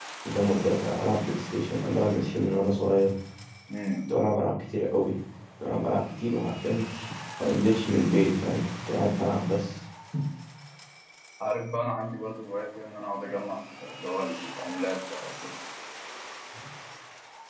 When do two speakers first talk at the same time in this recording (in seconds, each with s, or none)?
none